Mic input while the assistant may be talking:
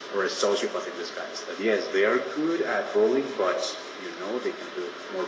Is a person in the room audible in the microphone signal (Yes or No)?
No